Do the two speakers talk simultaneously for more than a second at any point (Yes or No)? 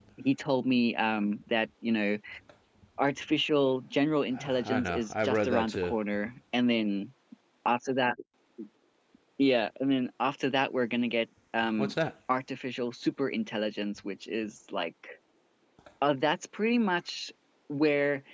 Yes